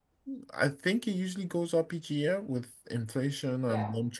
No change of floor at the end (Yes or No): Yes